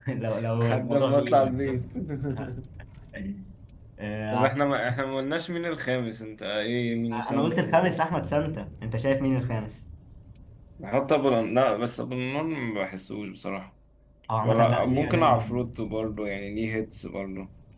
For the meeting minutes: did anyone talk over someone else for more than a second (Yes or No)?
Yes